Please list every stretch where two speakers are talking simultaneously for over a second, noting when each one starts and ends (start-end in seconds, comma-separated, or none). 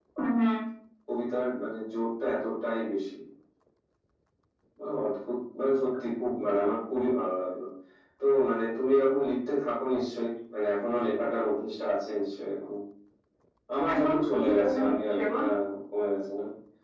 13.9-15.4